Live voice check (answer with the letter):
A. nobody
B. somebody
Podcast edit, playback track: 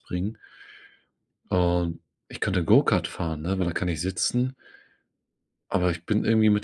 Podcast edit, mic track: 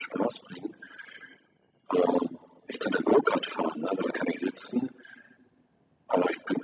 A